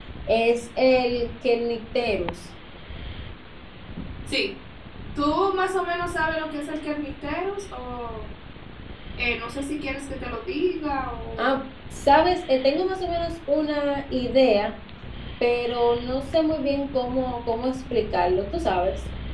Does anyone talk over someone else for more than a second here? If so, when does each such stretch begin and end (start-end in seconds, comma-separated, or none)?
none